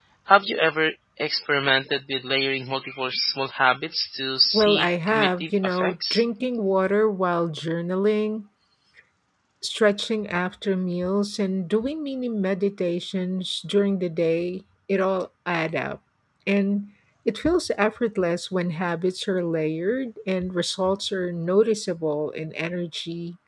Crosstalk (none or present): present